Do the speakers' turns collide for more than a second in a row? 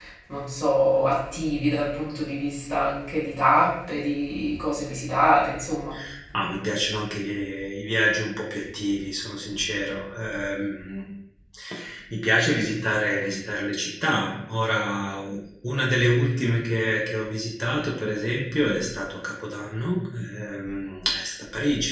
No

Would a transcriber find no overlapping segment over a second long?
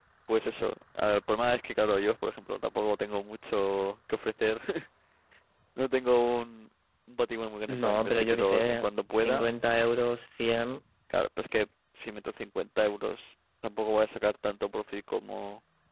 No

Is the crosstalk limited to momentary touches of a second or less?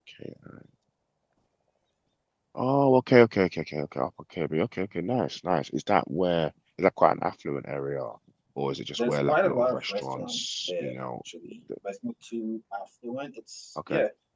No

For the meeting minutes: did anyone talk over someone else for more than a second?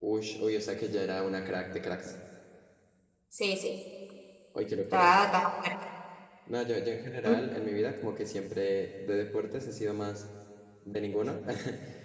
No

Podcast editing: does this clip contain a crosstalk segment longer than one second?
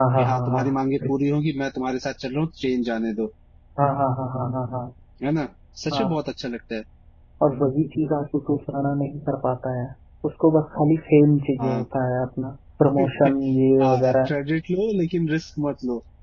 No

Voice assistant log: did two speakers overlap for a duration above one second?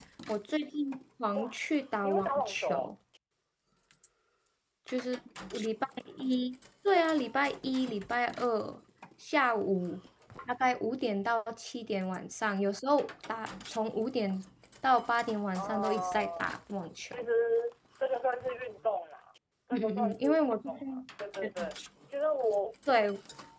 Yes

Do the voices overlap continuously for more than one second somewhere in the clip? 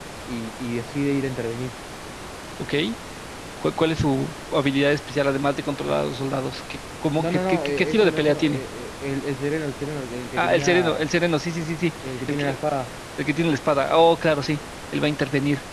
Yes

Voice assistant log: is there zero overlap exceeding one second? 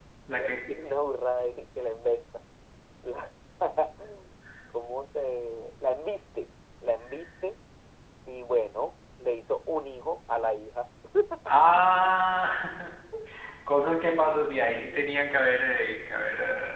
Yes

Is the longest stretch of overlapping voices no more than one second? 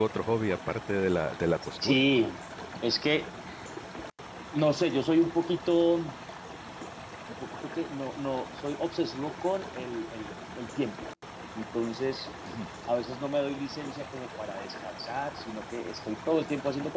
Yes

